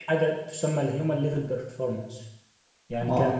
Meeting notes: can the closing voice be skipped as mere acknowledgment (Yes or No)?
Yes